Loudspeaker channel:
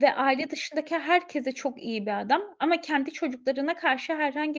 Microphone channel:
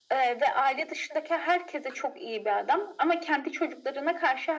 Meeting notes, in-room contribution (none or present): none